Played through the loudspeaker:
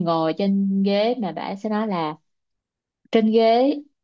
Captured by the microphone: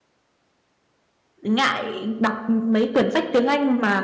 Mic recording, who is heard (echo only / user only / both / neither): user only